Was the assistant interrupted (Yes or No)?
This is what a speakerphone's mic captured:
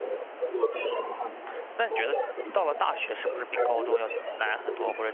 Yes